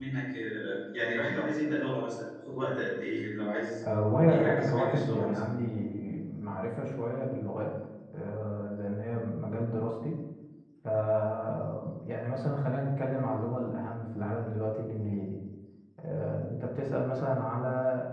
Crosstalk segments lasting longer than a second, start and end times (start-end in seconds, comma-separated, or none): 4.3-5.5